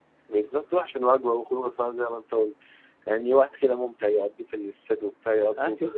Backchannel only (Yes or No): No